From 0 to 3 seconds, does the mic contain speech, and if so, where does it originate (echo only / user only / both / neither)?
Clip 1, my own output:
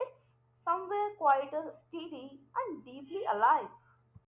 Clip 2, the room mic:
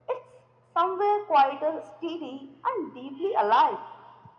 echo only